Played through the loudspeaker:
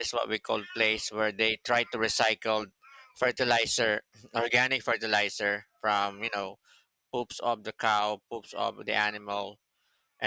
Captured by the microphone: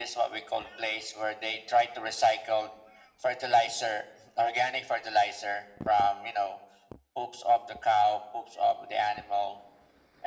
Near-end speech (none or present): none